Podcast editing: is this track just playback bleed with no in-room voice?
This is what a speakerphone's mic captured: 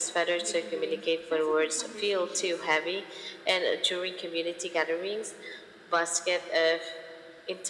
No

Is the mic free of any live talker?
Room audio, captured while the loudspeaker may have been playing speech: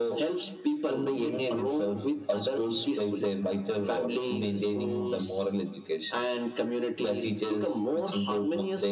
Yes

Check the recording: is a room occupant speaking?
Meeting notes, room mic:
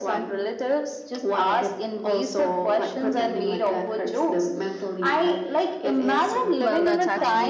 Yes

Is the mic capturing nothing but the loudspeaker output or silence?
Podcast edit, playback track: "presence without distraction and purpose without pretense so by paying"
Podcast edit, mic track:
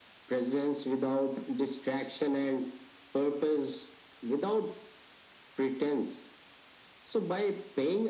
Yes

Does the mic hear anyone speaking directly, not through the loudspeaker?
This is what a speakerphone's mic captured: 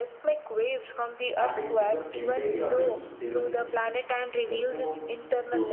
Yes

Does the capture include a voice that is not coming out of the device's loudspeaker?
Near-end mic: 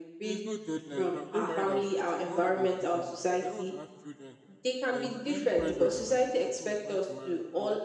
Yes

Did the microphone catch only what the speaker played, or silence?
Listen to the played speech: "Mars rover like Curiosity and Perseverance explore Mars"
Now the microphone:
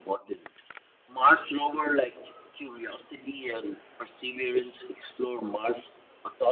Yes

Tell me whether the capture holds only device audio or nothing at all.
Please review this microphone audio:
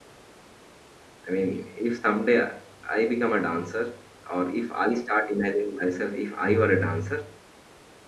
No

